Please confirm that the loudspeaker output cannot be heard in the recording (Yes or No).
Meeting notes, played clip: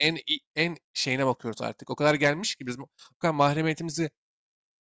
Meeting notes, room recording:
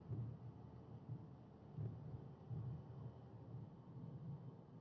Yes